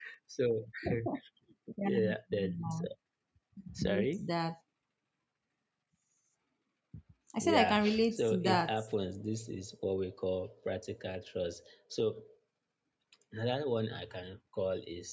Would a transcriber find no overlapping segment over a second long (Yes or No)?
No